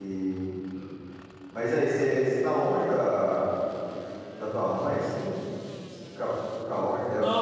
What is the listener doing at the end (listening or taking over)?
taking over